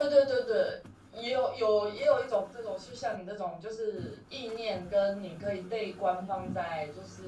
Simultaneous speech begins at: none

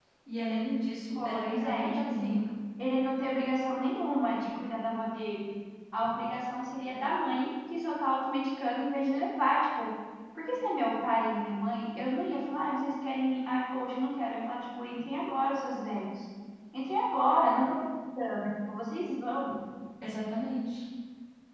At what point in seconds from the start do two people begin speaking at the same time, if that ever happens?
1.2 s

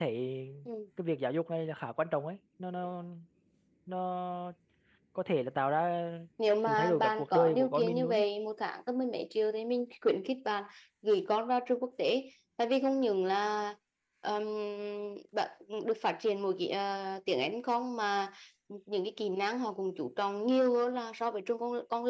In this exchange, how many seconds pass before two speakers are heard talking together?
6.6 s

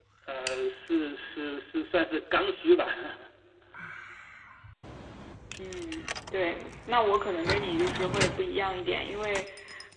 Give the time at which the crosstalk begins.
none

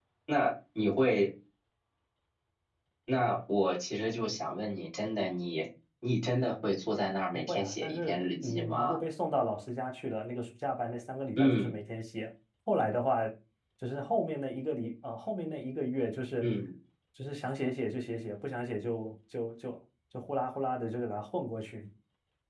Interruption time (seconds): 7.3 s

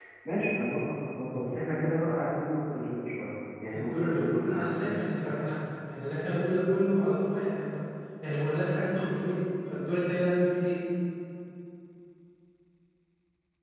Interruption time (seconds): 3.7 s

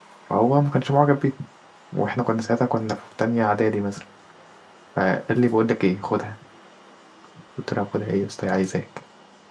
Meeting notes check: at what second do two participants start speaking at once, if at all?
none

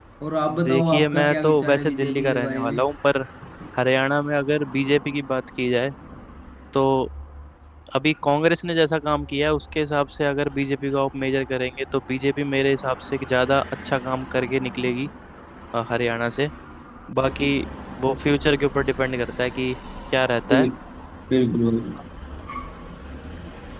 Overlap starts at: 0.6 s

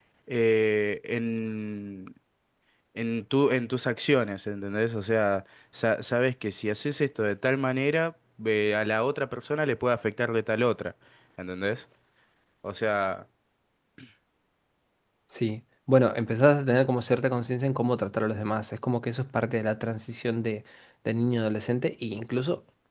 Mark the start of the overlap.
none

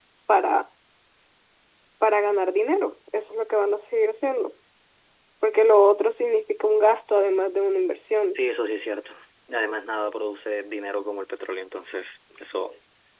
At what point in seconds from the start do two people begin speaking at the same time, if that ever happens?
none

